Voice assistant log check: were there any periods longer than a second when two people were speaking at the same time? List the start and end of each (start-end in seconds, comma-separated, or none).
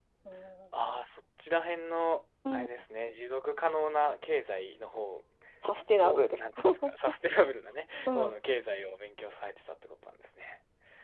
none